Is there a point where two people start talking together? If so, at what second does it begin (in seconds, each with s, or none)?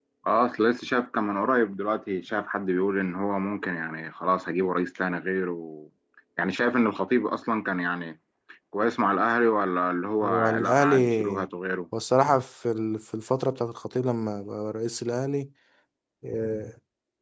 10.2 s